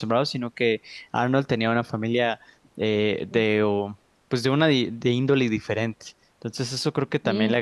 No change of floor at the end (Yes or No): Yes